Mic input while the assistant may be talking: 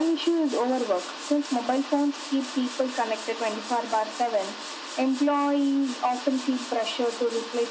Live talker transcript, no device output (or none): none